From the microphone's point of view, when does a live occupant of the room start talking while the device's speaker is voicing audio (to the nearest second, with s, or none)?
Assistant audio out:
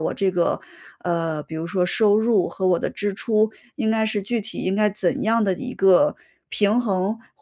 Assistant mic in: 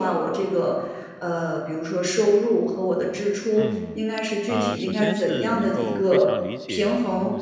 4 s